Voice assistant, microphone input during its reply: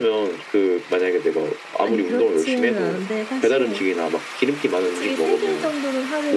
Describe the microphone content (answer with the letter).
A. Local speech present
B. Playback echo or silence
A